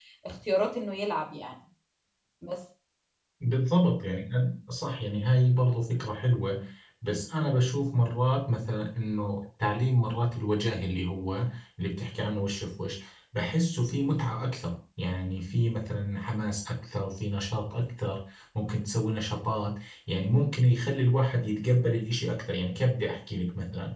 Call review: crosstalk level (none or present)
none